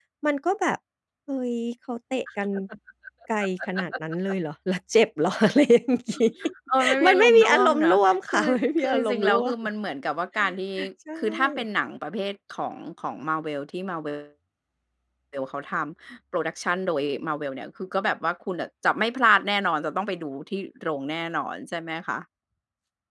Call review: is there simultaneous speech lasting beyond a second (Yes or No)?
Yes